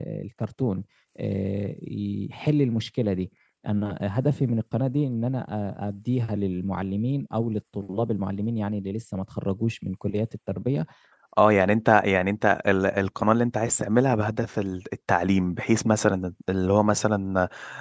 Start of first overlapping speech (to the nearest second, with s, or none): none